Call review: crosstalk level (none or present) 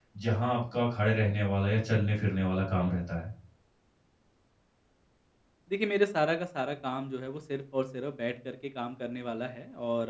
none